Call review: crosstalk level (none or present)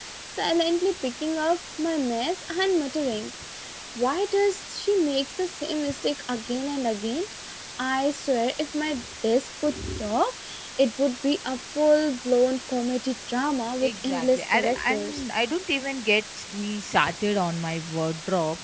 present